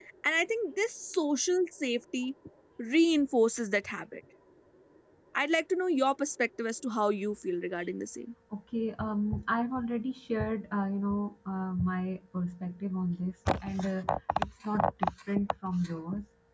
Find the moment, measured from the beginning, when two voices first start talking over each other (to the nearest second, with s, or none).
none